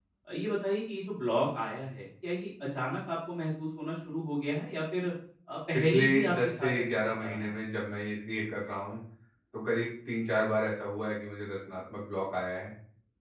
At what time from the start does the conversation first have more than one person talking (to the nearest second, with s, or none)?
6 s